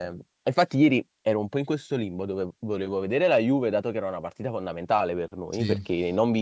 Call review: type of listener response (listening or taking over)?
listening